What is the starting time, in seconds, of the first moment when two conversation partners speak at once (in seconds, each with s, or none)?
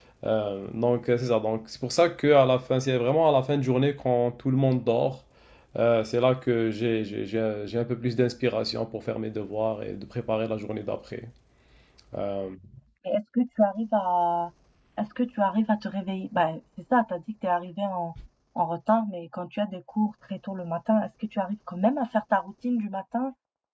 none